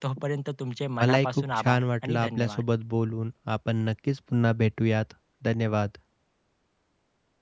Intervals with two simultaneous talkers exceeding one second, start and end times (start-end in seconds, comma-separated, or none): 1.0-2.6